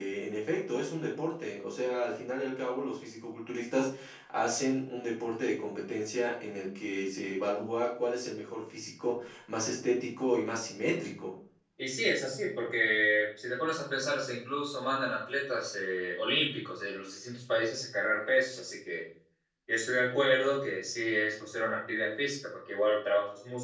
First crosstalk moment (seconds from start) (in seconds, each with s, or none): none